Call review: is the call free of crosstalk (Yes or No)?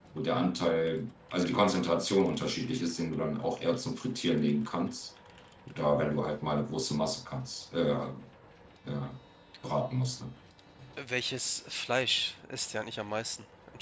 Yes